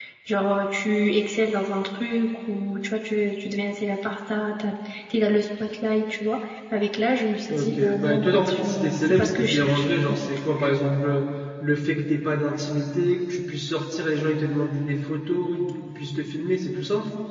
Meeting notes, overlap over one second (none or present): present